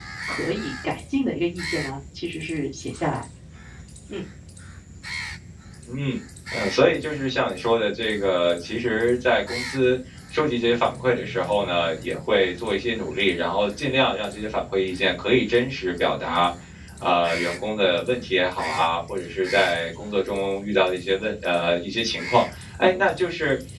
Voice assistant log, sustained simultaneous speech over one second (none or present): none